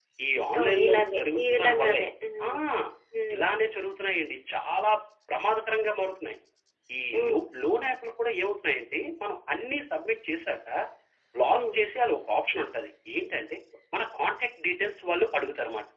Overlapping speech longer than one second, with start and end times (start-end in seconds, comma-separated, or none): 0.6-2.0